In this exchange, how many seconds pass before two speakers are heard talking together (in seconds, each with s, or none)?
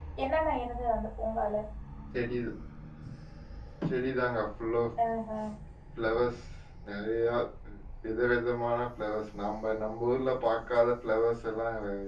none